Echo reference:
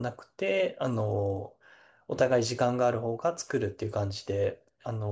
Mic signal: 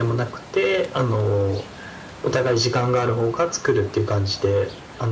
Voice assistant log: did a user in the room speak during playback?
No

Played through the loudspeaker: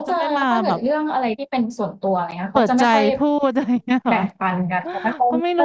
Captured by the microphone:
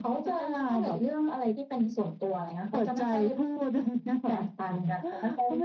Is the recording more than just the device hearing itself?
No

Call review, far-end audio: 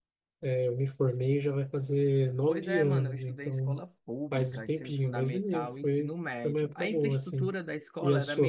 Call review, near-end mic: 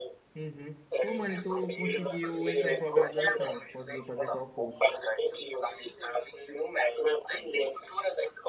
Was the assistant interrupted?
Yes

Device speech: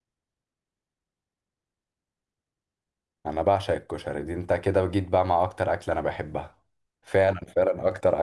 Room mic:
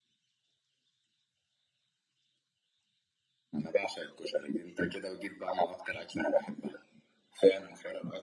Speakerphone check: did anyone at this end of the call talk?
No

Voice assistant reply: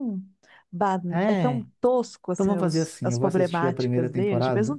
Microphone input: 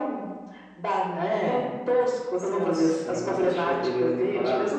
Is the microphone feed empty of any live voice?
Yes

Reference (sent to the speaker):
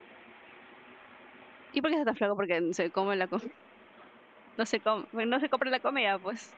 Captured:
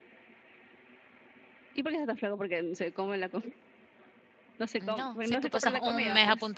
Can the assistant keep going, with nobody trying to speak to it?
No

